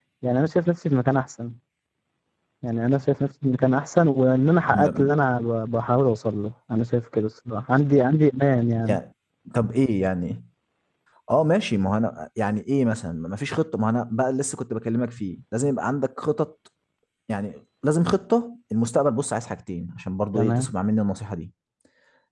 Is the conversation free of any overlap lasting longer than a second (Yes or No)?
Yes